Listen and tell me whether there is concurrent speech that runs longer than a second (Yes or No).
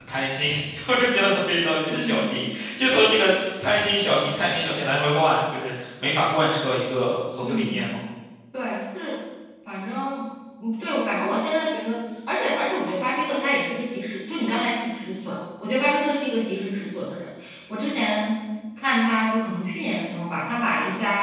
No